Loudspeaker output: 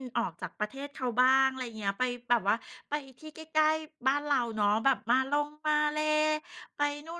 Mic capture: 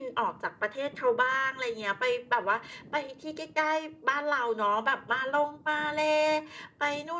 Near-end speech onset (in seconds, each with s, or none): none